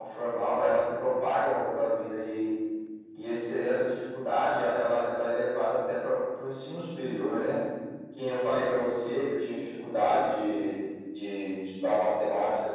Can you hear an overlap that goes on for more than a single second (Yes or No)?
No